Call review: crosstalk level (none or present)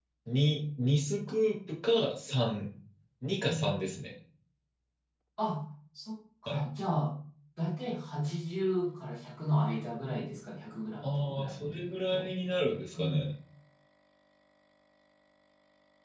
present